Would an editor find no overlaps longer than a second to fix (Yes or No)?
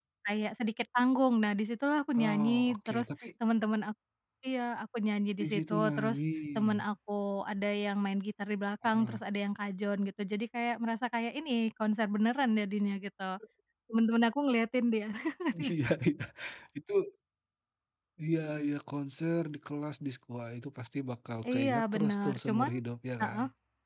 No